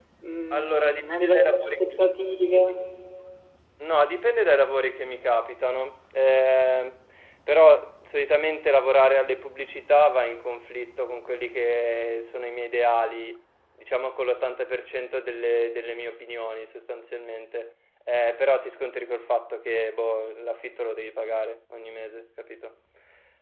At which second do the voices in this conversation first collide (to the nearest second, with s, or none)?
1 s